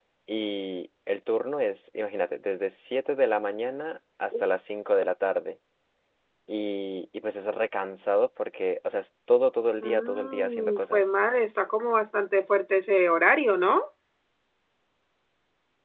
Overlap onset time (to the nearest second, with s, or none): 10 s